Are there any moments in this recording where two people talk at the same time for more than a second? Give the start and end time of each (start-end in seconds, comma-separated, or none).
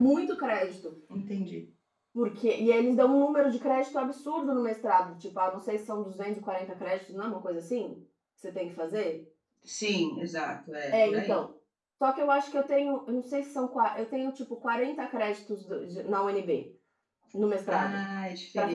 none